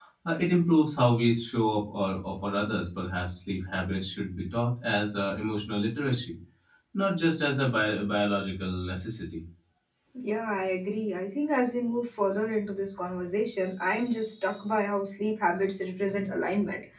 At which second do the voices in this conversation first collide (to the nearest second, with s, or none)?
none